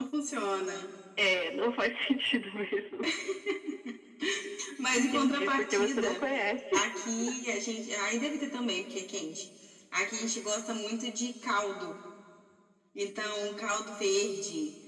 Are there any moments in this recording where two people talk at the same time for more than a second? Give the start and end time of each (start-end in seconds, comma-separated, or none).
4.9-6.2